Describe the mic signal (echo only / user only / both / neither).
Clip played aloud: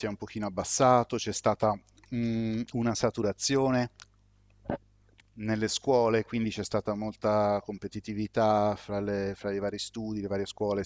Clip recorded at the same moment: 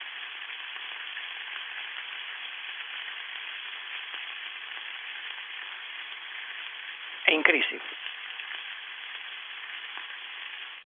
user only